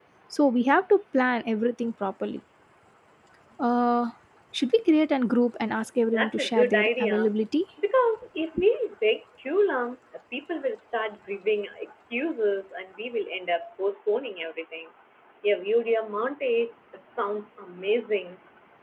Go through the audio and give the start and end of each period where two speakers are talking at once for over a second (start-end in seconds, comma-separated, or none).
6.1-7.4